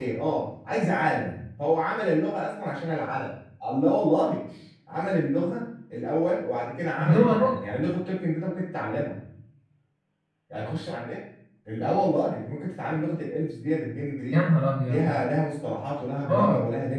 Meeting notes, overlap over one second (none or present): none